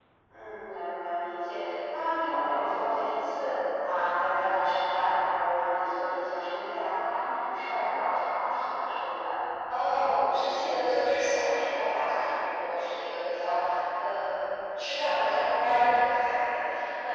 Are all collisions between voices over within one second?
Yes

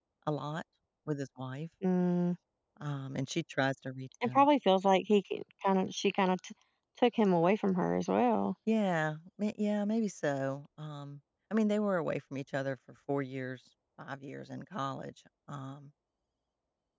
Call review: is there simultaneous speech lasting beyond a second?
No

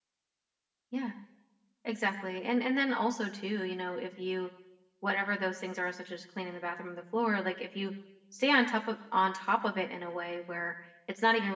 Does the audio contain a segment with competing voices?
No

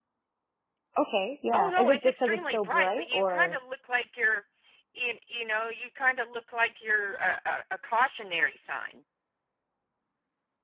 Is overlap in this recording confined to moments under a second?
No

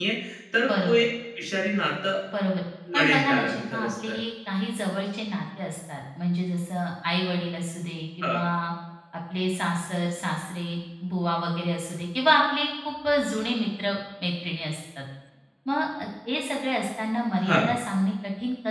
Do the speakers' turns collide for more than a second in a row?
Yes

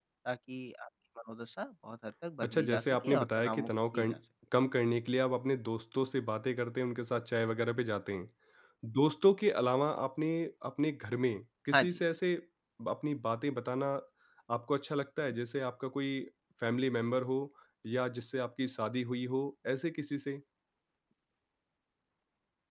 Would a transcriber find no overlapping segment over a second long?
No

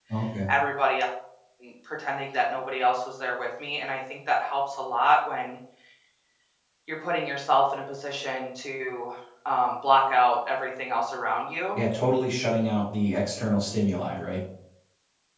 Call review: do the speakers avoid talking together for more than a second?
Yes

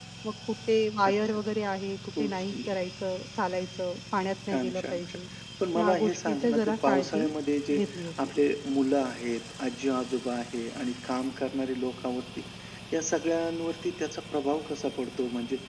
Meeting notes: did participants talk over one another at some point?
Yes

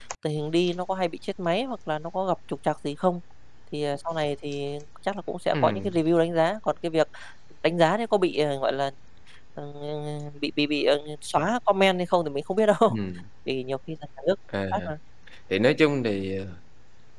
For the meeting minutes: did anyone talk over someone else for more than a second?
No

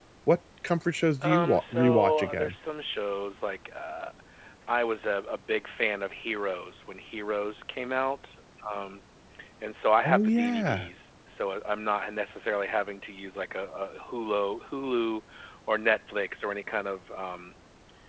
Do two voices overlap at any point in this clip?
Yes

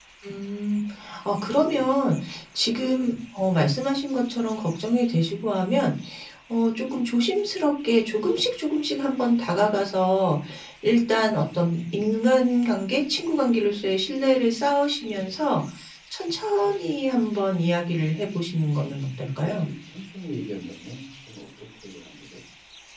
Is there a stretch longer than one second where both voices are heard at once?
No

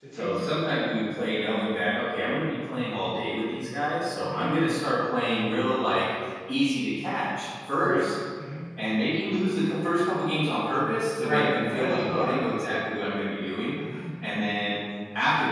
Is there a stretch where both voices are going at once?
Yes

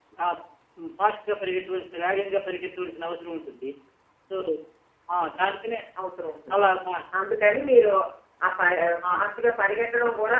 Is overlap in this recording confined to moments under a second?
Yes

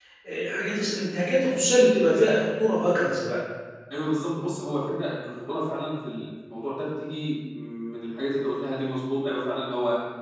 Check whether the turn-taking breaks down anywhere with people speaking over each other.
No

